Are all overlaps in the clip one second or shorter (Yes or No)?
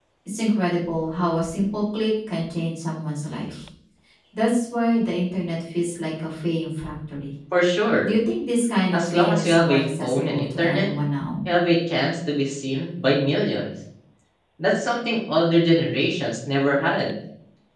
No